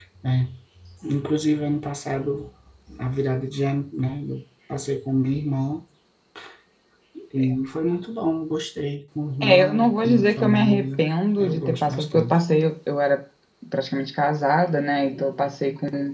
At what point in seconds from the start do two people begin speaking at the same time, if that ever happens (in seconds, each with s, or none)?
9.4 s